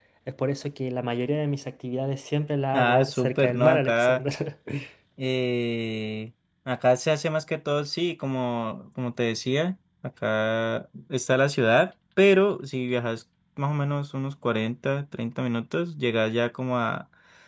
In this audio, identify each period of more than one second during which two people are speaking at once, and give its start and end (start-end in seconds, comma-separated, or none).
2.7-4.2